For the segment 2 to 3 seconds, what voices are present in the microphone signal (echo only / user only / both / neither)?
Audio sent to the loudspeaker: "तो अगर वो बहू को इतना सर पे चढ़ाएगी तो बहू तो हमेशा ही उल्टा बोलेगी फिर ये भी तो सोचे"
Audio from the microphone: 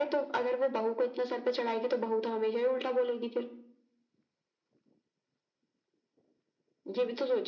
echo only